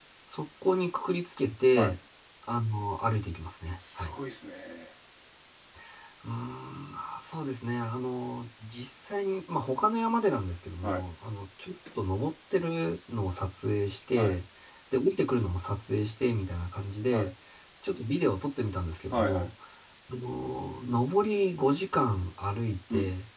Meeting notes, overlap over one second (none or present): none